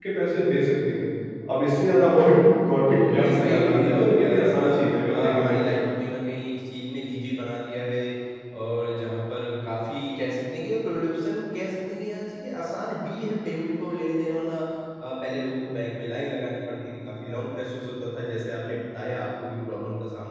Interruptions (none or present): present